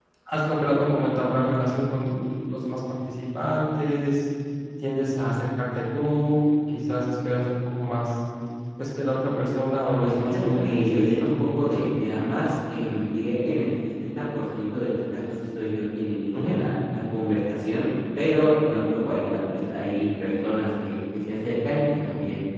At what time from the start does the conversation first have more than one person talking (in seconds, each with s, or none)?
10.0 s